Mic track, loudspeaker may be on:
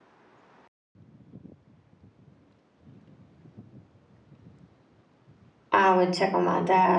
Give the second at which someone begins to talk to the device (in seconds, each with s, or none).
5.7 s